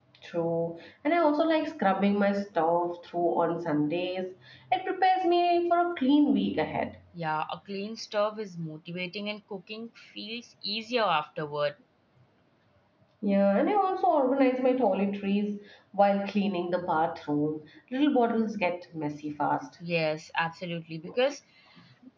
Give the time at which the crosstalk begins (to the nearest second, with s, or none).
none